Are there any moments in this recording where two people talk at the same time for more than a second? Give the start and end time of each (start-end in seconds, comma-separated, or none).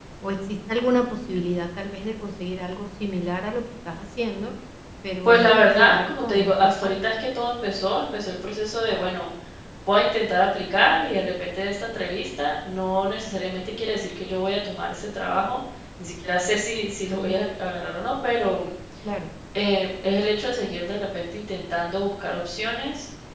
5.2-7.0